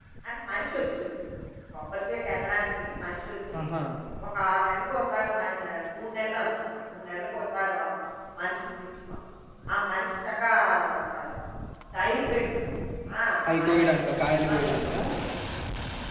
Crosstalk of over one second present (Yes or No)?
Yes